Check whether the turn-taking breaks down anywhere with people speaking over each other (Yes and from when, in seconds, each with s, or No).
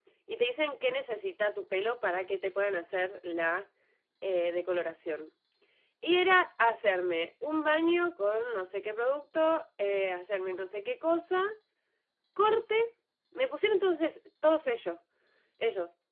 No